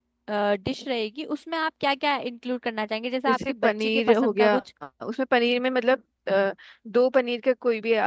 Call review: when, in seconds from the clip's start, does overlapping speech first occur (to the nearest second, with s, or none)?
3 s